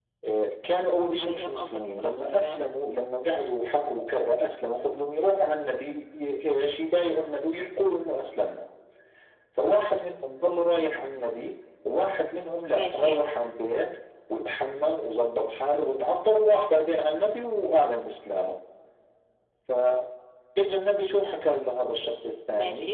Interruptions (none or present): present